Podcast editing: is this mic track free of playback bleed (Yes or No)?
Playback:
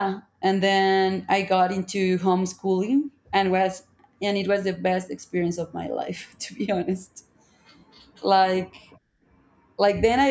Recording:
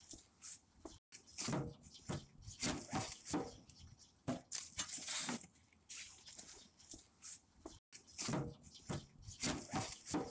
Yes